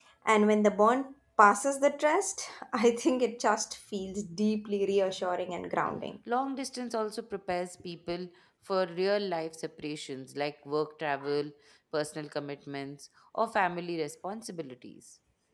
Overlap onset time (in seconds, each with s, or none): none